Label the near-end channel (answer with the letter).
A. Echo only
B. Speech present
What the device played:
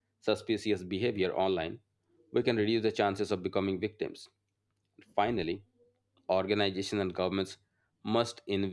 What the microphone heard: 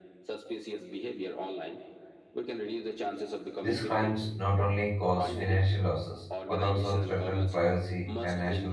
B